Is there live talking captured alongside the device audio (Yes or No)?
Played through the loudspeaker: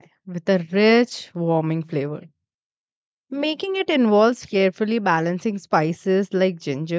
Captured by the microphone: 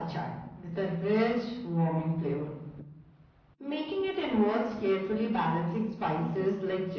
Yes